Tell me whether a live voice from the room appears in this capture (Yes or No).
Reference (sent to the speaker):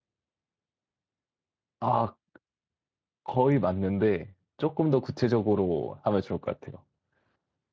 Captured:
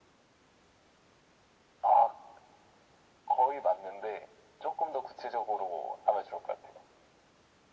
No